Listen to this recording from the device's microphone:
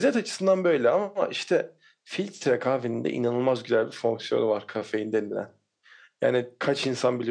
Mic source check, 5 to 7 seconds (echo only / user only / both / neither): echo only